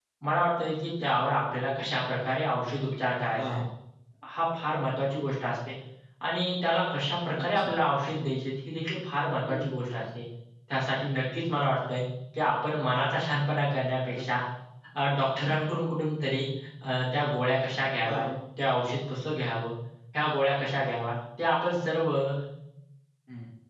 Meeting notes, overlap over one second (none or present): none